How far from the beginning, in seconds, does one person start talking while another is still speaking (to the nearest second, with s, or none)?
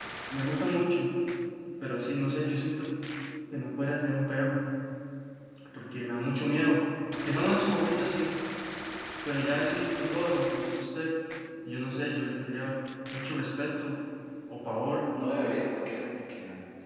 none